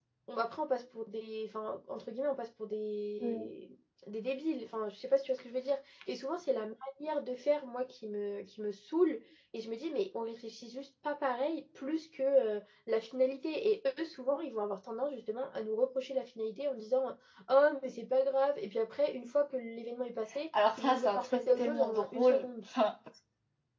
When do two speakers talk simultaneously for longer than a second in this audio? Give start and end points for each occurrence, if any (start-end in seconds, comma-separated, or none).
20.8-22.5